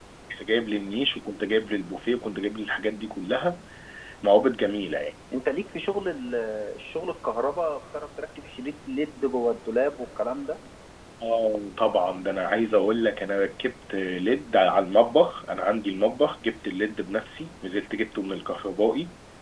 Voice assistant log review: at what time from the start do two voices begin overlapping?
none

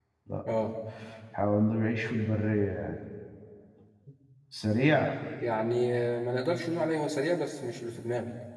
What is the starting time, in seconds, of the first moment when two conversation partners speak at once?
none

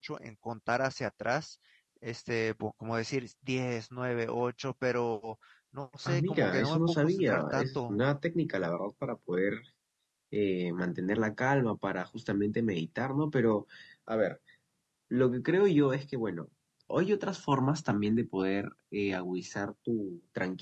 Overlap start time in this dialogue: 6.0 s

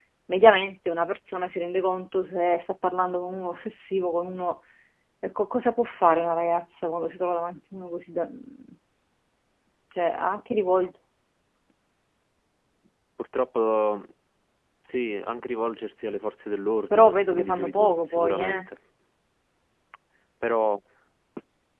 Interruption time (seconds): 16.9 s

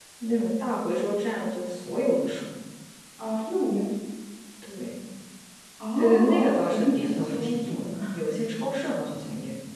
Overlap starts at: 6.0 s

